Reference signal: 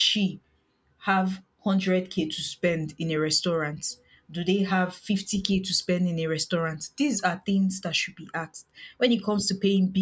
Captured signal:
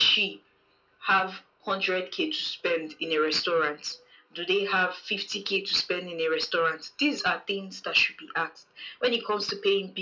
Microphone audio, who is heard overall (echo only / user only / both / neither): echo only